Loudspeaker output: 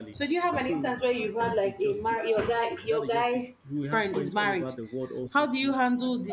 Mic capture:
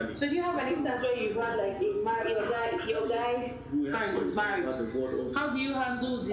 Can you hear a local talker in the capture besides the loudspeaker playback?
No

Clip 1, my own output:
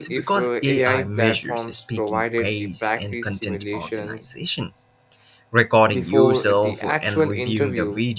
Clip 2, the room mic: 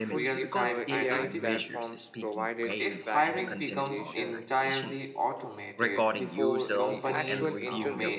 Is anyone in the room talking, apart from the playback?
Yes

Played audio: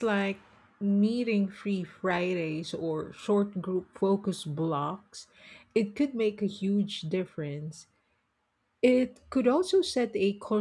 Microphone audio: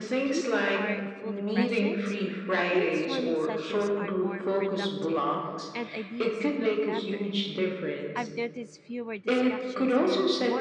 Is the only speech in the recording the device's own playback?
No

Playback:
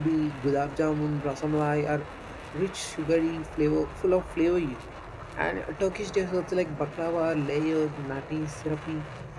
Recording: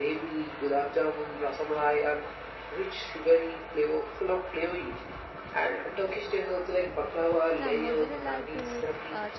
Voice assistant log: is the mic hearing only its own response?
No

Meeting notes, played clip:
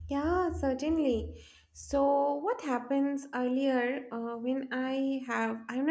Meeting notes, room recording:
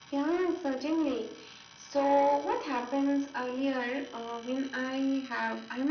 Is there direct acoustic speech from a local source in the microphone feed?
No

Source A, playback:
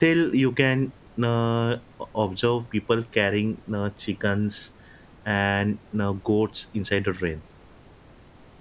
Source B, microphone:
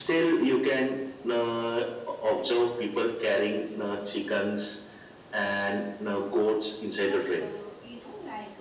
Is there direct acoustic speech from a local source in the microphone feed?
Yes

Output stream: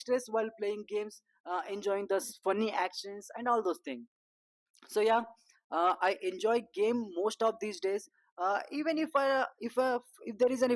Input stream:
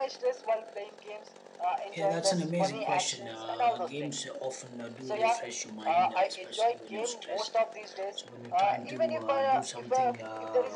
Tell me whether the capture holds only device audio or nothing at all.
No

